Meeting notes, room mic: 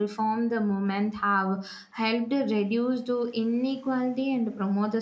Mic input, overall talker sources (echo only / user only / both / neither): user only